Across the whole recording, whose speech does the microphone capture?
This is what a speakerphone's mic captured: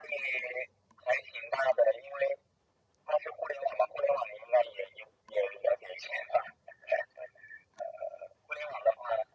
echo only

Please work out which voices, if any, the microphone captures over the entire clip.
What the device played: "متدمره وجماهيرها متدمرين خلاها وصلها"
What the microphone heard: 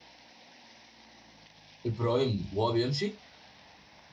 user only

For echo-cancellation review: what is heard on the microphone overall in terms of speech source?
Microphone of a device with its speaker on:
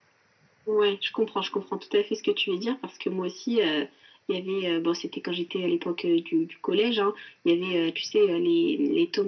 echo only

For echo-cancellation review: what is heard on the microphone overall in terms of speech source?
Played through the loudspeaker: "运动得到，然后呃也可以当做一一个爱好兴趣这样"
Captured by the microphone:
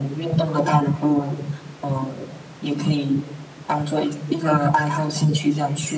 echo only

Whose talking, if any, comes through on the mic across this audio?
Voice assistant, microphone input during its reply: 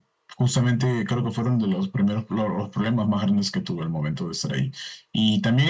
echo only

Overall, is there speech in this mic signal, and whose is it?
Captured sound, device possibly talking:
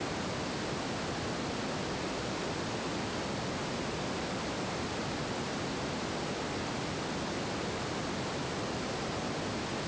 neither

